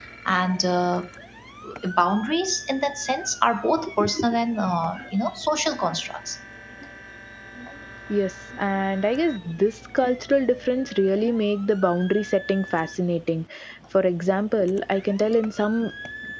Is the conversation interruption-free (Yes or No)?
Yes